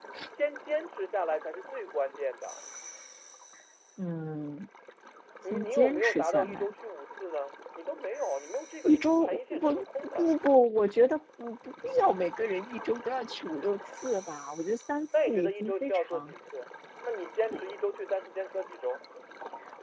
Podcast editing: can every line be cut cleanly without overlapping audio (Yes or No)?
No